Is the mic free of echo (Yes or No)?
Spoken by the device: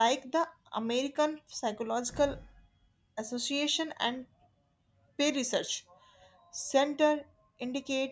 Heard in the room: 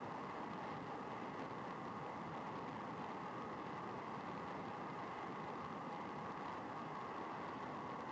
Yes